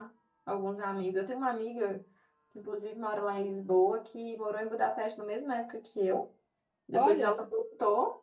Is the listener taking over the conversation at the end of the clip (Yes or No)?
No